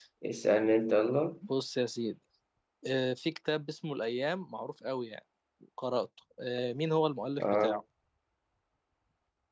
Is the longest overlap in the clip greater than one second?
No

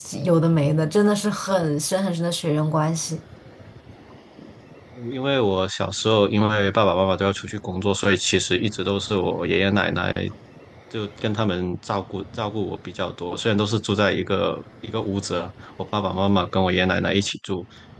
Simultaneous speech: No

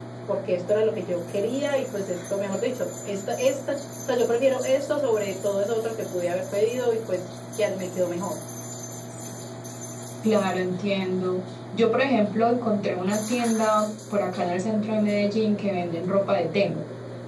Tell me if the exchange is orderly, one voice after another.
Yes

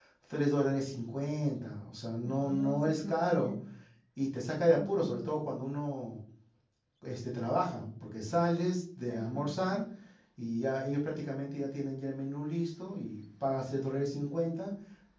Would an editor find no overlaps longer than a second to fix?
No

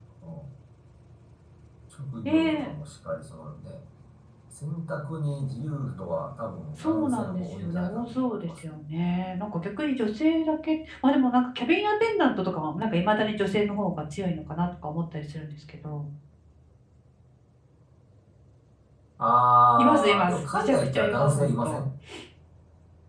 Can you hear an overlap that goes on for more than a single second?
Yes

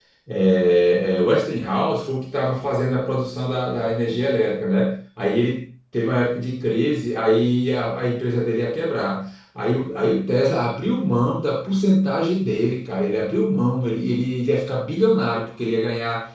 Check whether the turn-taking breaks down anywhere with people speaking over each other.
No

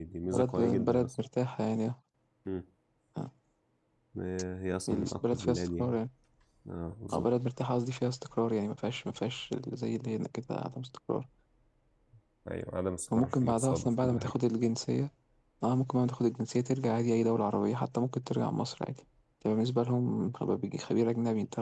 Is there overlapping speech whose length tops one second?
Yes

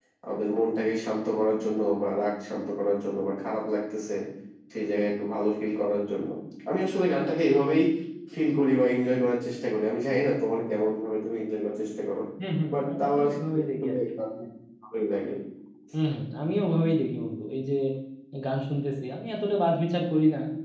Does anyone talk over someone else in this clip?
Yes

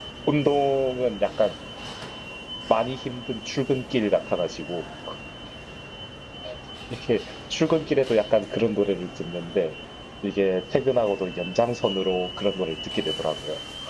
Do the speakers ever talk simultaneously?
No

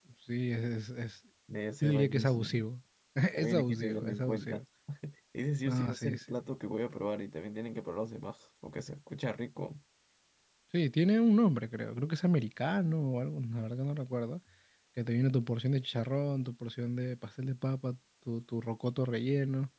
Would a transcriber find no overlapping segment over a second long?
No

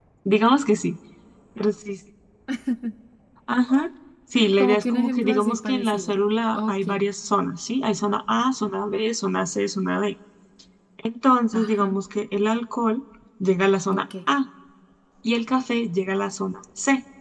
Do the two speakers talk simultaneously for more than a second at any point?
Yes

